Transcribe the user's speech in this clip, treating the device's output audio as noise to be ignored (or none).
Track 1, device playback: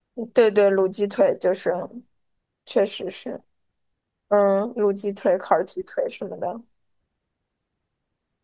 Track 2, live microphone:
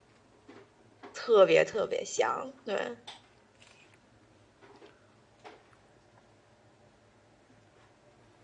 特别特别香。对，